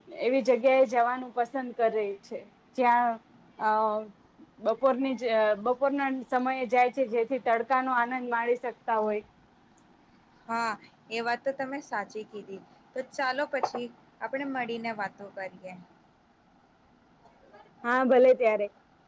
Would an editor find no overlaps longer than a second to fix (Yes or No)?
Yes